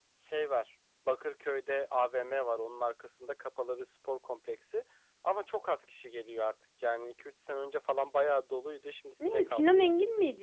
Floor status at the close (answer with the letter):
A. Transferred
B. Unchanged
A